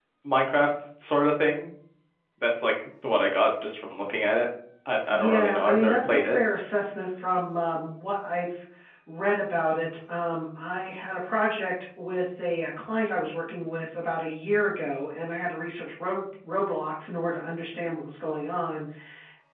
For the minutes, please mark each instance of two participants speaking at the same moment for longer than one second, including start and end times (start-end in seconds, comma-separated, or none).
5.1-6.4